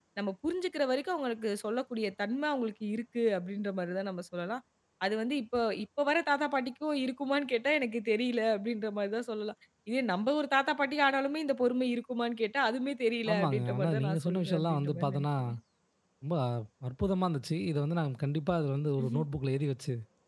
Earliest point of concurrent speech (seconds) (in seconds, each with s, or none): 13.3 s